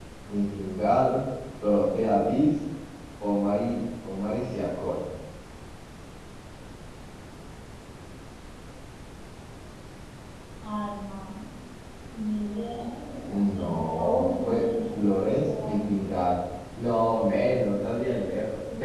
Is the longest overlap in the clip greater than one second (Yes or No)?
Yes